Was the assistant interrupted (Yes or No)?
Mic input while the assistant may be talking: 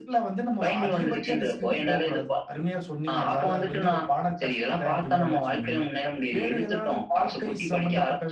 No